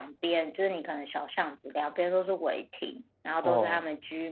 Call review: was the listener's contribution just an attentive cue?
Yes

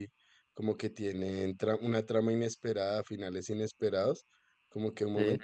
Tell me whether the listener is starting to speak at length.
No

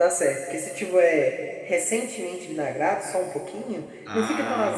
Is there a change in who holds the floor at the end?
Yes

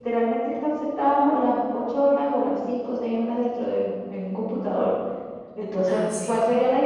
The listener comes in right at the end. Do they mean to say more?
No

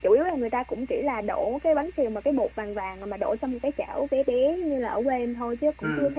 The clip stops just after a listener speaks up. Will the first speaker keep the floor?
Yes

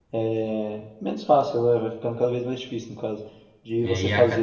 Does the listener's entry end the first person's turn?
Yes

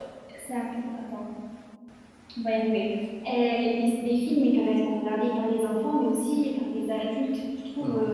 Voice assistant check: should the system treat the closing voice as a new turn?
No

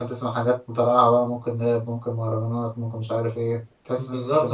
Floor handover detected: Yes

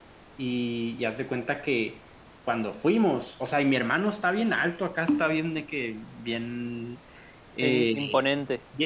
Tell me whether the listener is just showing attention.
Yes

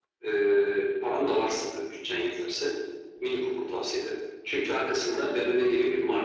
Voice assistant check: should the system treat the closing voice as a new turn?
No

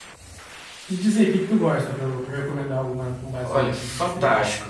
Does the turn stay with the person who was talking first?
No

